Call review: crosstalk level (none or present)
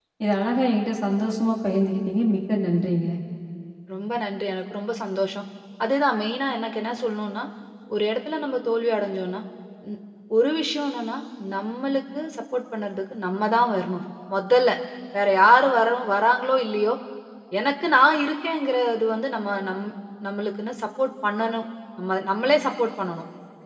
none